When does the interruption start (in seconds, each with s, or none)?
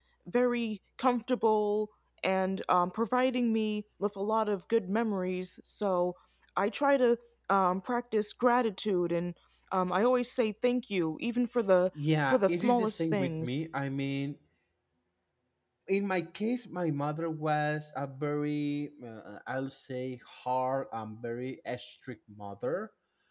12.3 s